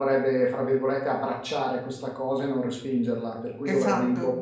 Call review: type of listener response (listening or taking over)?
listening